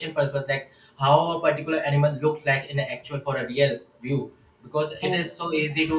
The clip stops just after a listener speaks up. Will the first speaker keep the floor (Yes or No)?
Yes